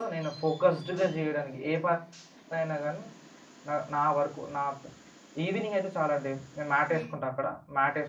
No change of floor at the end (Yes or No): Yes